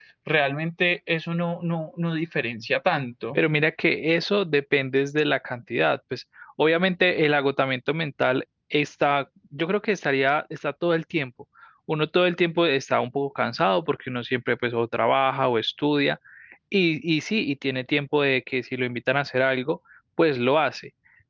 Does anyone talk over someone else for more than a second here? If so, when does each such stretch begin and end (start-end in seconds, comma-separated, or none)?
none